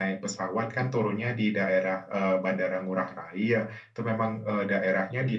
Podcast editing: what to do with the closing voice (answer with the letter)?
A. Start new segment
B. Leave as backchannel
B